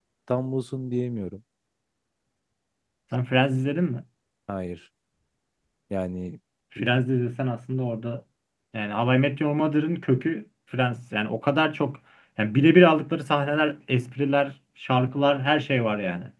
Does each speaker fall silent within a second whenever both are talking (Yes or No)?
Yes